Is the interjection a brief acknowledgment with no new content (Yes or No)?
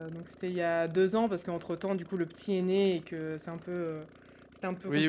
Yes